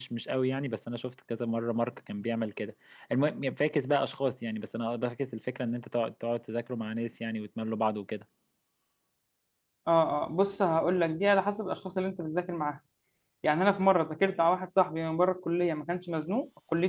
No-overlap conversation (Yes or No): Yes